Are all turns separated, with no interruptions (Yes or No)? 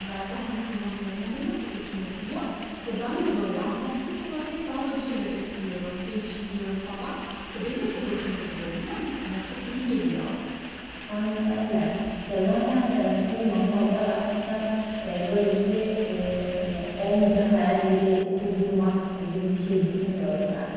Yes